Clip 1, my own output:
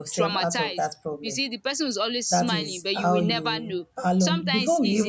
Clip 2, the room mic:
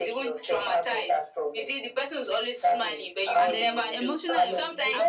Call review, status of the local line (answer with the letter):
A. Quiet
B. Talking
B